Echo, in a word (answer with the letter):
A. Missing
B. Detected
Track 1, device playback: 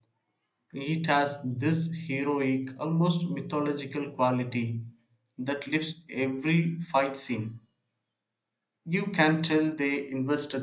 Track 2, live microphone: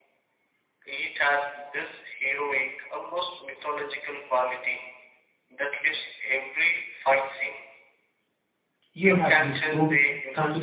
B